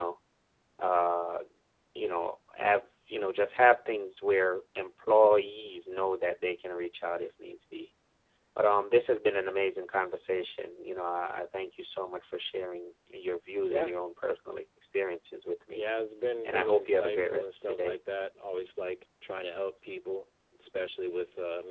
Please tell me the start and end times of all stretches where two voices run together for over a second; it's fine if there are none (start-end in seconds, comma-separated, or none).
16.4-18.0